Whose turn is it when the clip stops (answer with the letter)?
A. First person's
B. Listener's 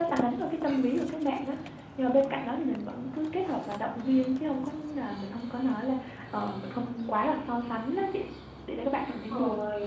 B